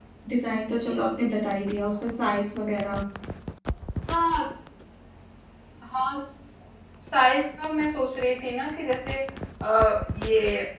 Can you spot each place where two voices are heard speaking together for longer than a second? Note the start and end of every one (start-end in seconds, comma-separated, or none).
none